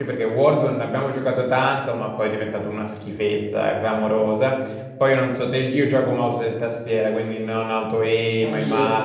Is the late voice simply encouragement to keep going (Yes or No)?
Yes